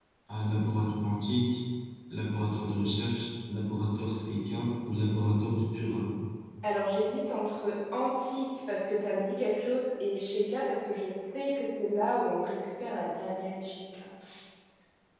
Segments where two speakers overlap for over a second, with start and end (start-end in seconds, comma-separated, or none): none